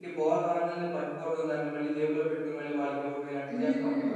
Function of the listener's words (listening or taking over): taking over